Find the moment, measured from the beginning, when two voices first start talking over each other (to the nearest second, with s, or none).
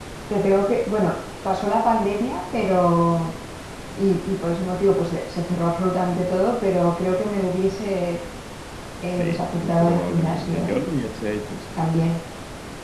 9 s